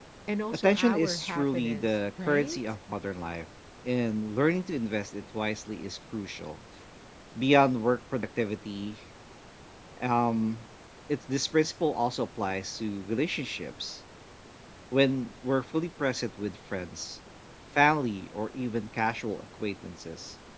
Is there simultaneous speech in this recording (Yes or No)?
Yes